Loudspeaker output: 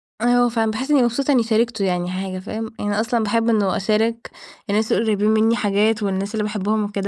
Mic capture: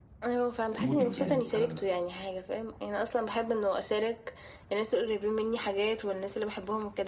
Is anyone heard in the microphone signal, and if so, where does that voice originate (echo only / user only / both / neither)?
both